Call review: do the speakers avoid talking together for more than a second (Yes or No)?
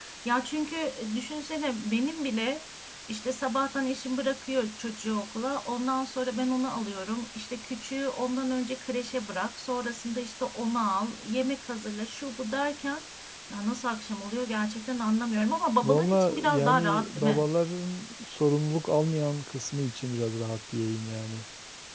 No